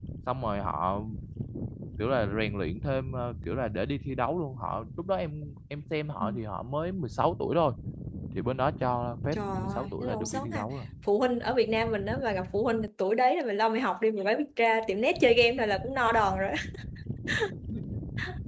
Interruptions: present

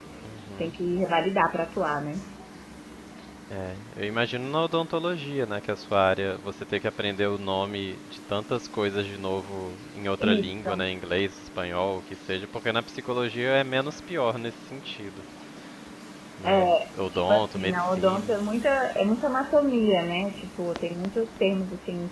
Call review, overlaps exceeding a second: present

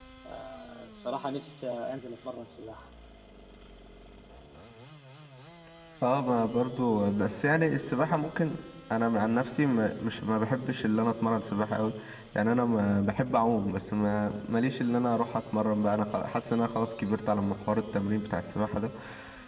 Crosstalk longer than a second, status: none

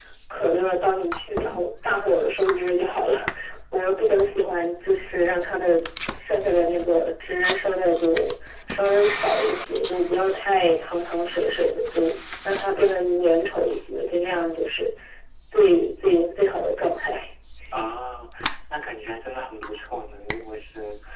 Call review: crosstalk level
none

